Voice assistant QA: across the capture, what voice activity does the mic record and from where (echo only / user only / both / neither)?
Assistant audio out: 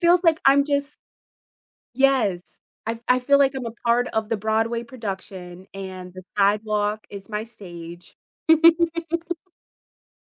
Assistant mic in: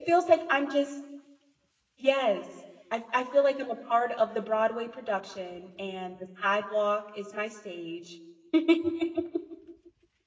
echo only